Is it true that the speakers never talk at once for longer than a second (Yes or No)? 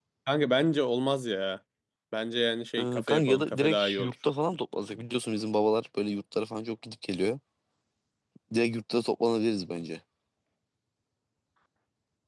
No